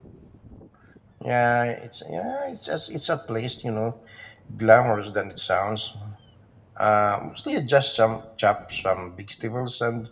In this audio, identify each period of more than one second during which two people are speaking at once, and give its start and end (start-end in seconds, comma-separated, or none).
none